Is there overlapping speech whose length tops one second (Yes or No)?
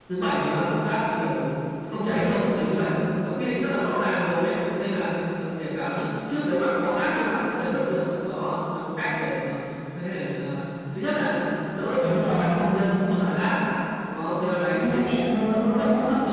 Yes